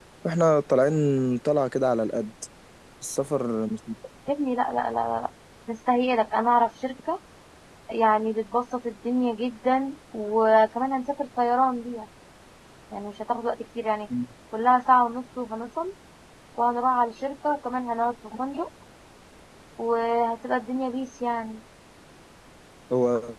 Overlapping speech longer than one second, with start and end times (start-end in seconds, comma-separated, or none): none